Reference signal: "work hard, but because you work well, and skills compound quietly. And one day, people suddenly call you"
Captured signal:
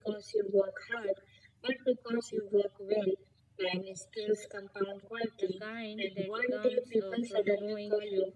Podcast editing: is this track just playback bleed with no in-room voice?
No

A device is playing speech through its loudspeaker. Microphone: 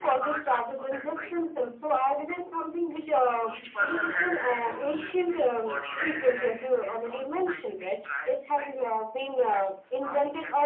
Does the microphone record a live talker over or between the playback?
Yes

